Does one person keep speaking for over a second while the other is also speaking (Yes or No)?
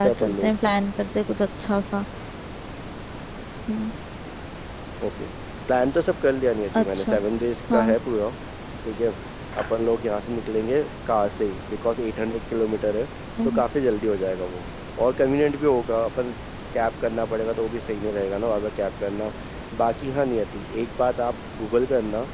No